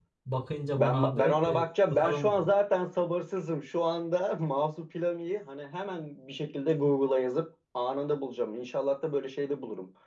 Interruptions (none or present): present